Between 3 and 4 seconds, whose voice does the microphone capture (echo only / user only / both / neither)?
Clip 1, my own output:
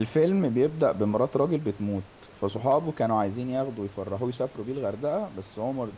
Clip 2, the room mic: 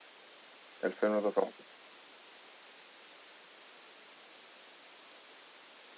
neither